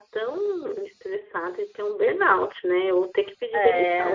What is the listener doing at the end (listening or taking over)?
listening